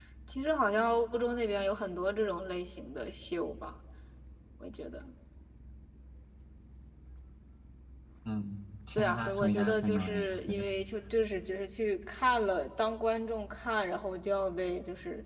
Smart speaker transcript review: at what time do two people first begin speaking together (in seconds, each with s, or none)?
8.9 s